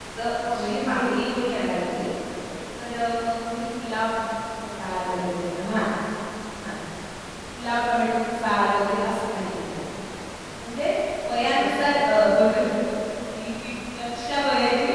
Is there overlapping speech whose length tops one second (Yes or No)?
Yes